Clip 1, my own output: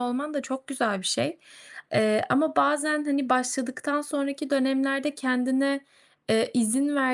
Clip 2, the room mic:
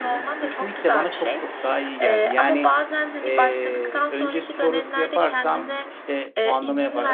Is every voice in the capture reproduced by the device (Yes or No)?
No